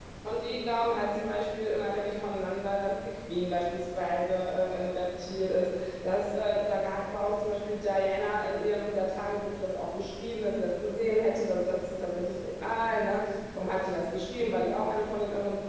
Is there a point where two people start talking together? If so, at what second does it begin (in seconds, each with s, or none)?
none